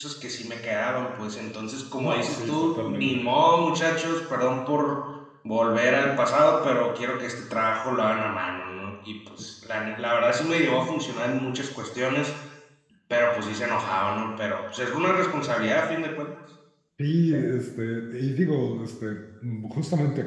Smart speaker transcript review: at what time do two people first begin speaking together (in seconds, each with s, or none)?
2.0 s